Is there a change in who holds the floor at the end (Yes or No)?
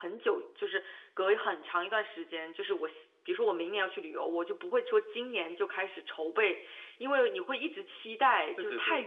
No